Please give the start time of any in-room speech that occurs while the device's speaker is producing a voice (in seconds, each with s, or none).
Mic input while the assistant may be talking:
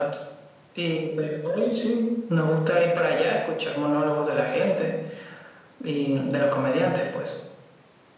none